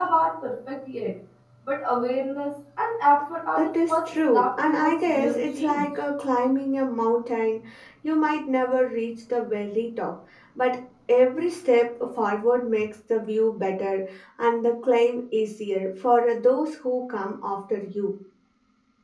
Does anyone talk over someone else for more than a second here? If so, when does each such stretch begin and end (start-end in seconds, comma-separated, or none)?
3.5-5.8